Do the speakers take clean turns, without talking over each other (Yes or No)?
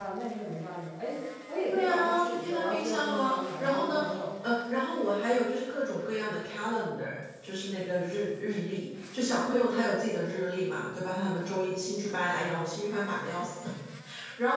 No